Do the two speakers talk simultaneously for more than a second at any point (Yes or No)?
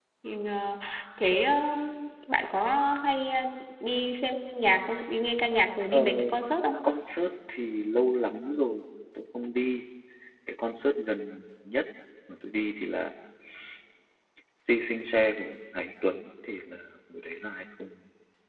No